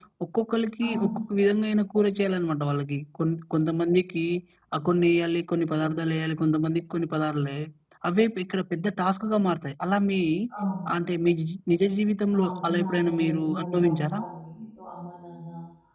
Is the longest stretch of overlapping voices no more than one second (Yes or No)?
No